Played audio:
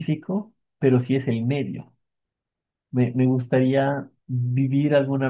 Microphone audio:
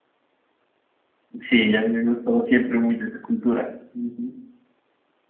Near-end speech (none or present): present